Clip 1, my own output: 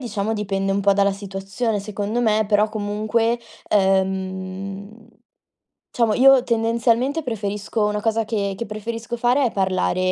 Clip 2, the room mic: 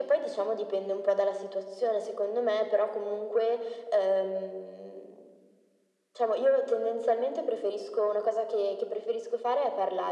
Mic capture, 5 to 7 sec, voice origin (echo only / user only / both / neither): echo only